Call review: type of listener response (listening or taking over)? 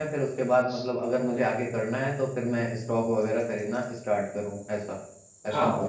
taking over